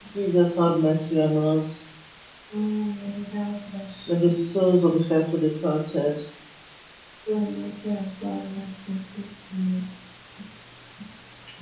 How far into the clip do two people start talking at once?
none

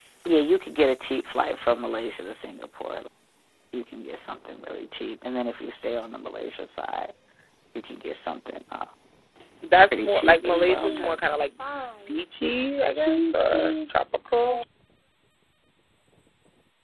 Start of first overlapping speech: 10 s

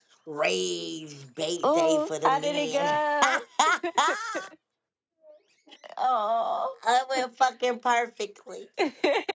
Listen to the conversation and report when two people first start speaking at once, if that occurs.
2 s

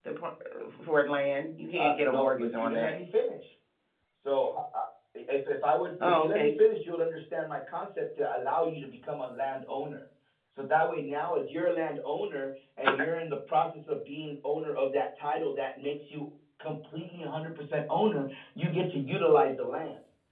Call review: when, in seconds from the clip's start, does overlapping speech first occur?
2 s

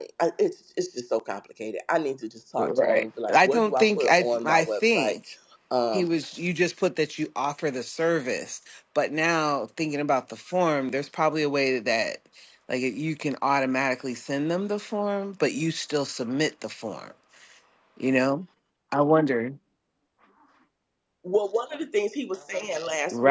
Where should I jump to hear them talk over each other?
3 s

